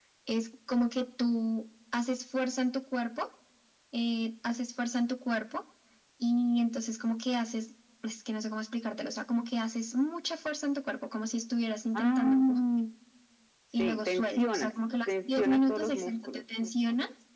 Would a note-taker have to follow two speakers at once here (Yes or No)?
Yes